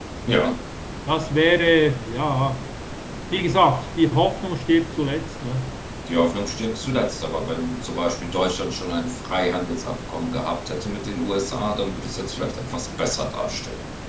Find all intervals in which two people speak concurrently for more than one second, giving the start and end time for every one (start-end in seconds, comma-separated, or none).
none